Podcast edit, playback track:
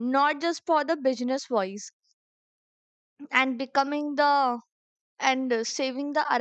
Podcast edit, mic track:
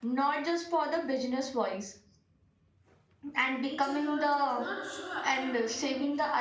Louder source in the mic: echo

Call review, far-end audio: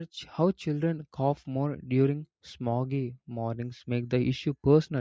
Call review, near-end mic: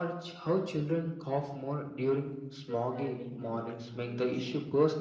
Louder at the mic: echo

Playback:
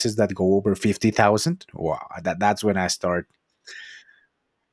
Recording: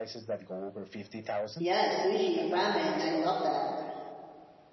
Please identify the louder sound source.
user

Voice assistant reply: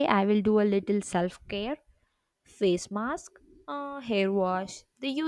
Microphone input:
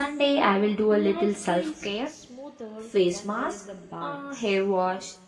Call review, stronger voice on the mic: echo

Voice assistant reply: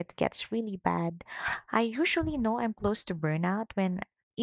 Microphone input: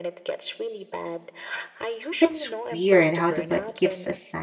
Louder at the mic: user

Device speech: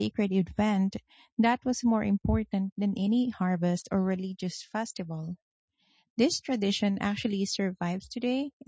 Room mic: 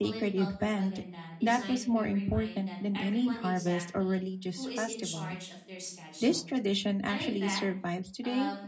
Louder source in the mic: echo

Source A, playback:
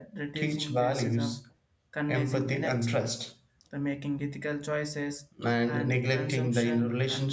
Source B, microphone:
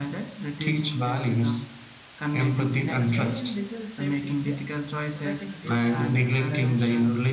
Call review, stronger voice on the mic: echo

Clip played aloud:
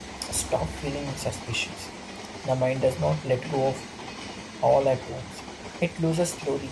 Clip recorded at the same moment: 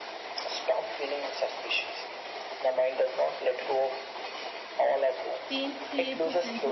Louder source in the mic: echo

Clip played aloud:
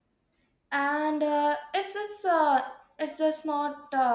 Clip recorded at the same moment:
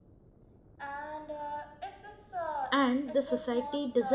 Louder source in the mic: user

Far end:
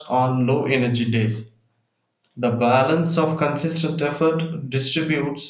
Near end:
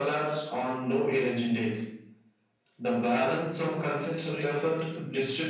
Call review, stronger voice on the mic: echo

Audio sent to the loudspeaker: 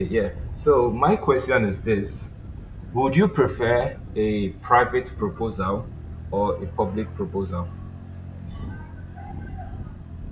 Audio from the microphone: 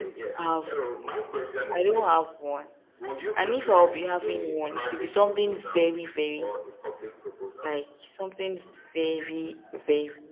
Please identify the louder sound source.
user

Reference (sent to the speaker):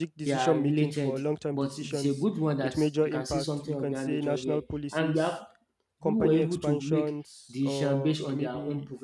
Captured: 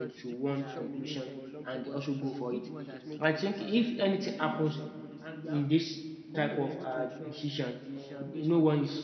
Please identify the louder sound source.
user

